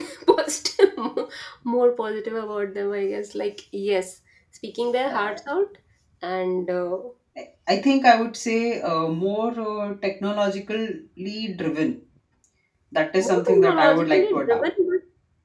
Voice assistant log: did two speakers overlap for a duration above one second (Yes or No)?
Yes